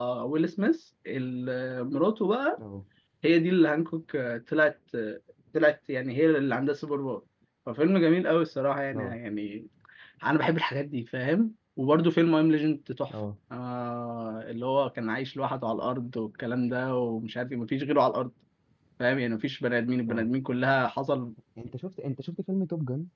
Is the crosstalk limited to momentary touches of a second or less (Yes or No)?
Yes